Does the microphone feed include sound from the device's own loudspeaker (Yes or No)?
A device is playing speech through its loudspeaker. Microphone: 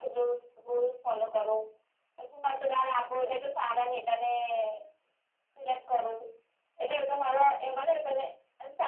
Yes